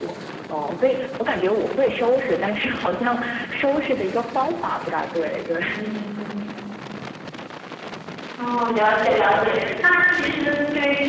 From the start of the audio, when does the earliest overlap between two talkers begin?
none

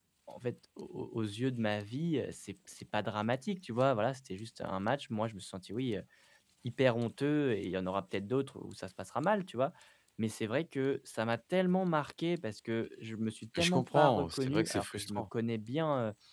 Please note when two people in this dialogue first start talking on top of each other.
13.6 s

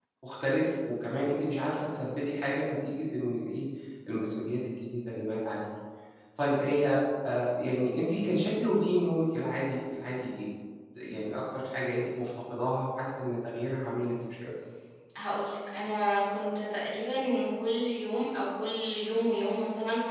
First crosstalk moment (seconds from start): none

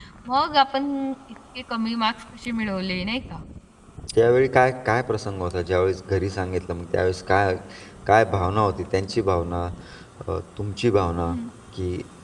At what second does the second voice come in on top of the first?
none

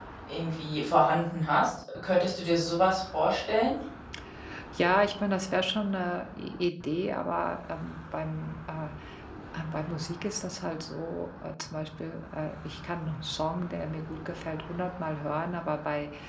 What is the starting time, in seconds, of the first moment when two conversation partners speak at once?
none

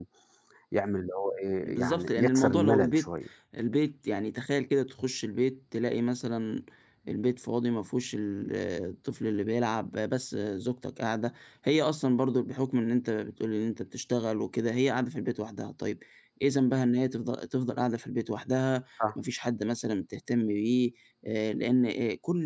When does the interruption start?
1.6 s

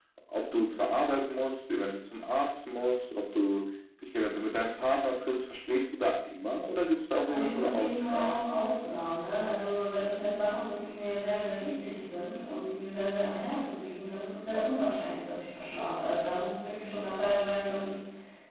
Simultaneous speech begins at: 7.2 s

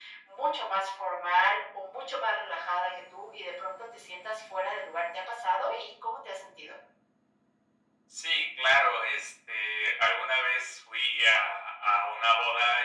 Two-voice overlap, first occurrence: none

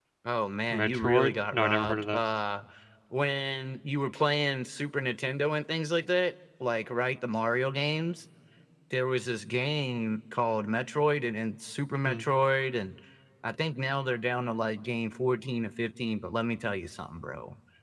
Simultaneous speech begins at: 0.7 s

